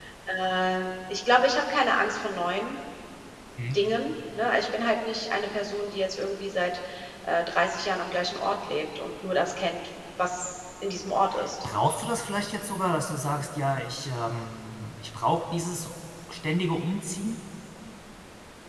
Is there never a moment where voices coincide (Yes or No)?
Yes